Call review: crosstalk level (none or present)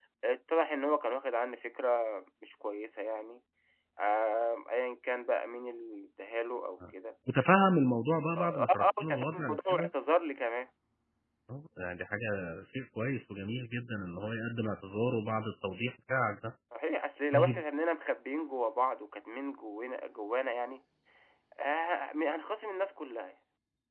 present